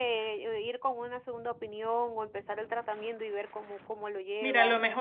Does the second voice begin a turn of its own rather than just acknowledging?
Yes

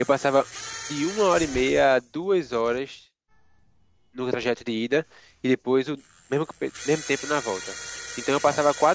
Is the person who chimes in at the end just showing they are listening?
Yes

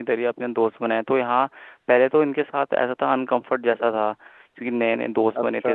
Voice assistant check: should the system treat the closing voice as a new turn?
No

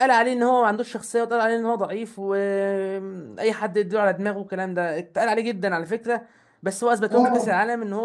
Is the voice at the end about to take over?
No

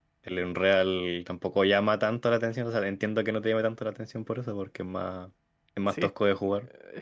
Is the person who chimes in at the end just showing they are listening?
No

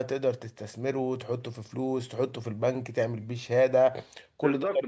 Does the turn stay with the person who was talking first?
No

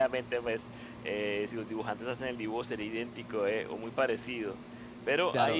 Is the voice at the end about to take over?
Yes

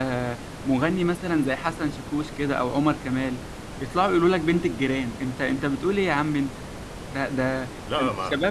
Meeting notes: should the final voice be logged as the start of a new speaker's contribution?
No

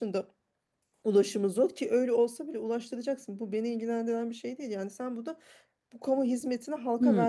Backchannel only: No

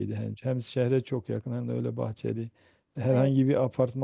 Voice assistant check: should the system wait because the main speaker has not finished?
Yes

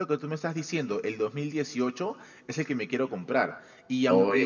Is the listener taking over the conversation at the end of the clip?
No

